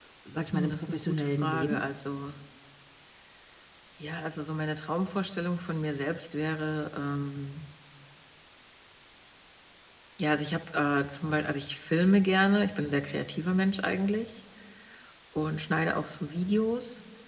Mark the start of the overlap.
0.5 s

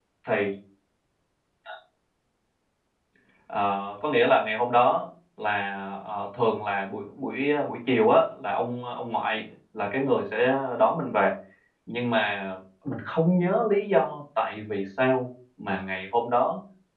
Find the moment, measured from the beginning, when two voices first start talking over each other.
none

